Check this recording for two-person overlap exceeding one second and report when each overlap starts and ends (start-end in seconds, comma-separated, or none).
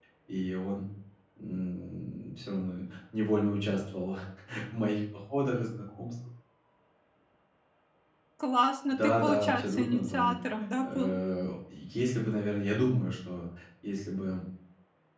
8.9-10.3